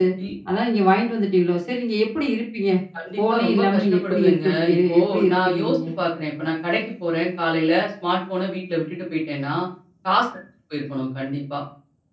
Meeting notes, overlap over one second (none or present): present